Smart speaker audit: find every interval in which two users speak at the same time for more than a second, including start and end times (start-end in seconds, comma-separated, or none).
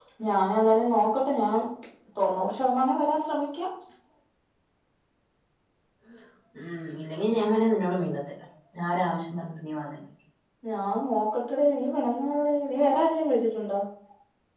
none